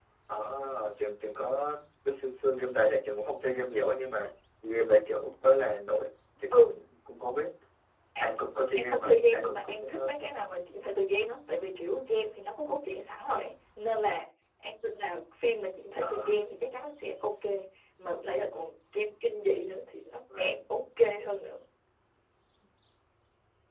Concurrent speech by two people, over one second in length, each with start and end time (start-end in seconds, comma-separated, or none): 8.8-10.1